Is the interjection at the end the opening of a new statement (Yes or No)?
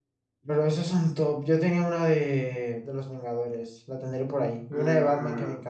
Yes